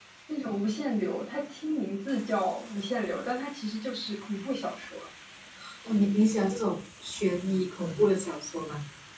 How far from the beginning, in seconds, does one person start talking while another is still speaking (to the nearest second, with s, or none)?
none